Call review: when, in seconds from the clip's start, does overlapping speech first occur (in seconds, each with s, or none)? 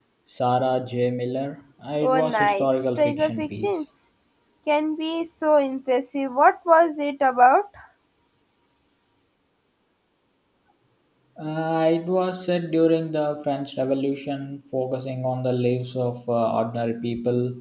2.0 s